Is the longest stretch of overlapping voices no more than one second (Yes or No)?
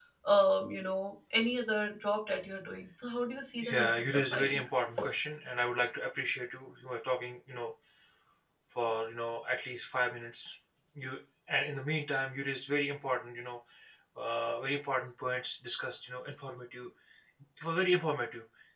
No